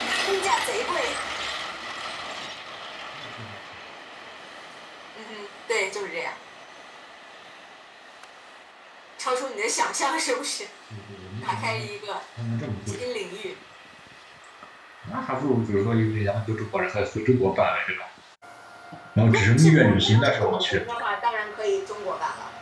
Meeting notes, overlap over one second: present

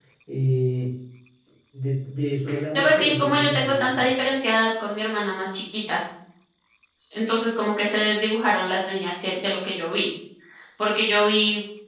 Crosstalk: present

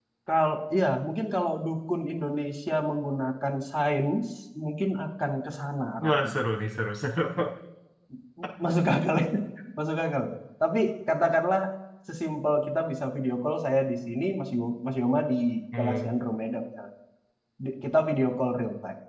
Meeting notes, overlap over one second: none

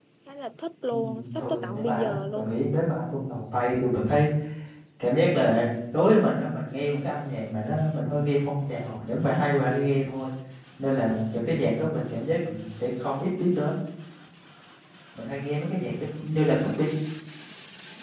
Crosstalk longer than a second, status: present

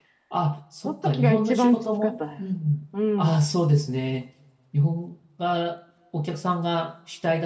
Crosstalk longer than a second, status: present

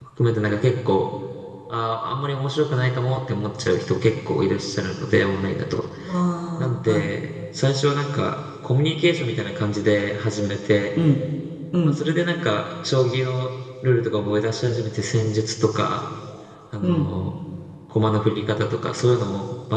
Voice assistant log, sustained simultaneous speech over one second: none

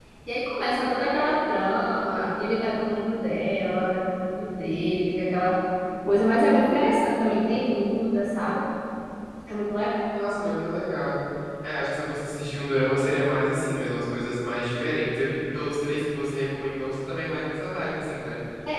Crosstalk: none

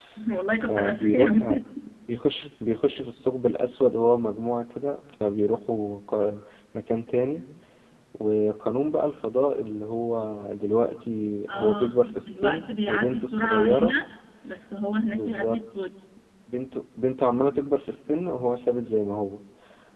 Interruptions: present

